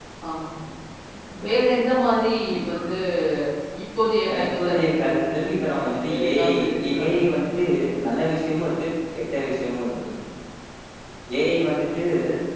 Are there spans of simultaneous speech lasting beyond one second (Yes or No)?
Yes